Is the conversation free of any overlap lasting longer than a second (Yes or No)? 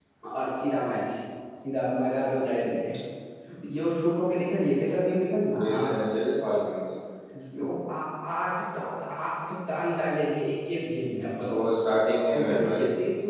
Yes